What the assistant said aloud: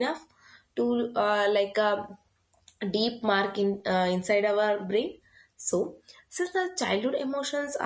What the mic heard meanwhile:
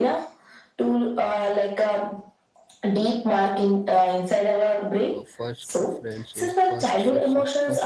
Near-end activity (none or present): present